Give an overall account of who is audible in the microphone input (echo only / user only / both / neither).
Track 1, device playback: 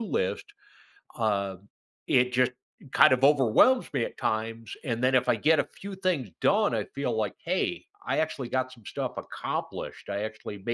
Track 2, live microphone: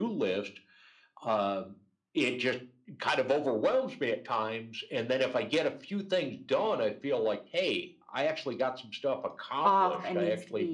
both